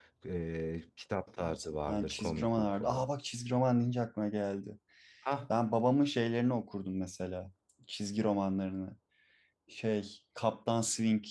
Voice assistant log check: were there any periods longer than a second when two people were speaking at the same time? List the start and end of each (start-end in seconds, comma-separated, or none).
1.9-3.1